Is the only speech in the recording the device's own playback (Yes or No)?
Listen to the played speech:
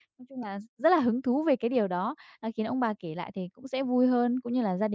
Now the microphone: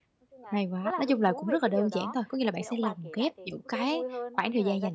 No